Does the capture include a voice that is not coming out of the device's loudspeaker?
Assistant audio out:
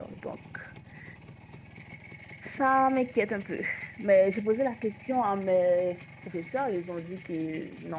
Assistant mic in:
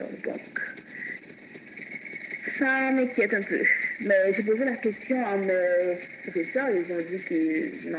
No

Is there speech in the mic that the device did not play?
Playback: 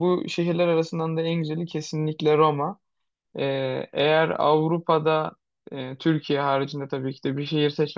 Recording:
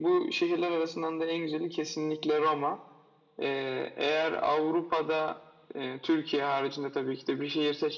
No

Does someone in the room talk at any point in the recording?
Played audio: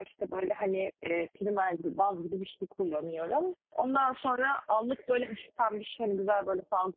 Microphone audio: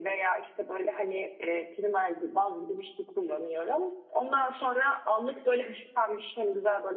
No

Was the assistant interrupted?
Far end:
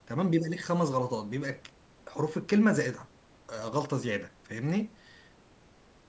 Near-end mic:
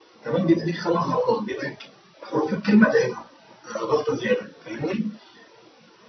No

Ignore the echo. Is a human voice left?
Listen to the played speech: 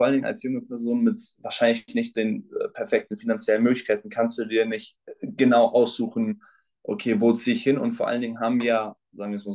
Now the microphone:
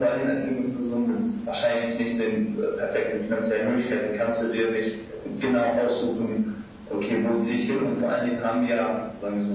No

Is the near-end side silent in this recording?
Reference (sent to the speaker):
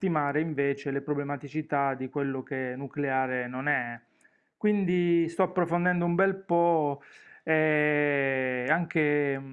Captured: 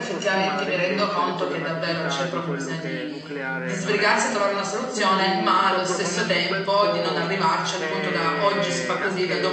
No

